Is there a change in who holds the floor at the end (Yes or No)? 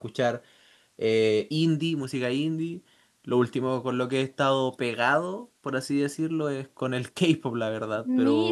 Yes